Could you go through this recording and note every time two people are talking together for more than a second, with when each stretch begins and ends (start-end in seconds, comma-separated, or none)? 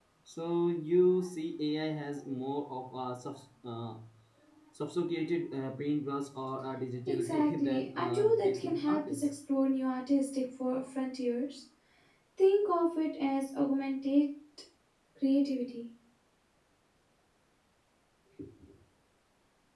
7.1-9.3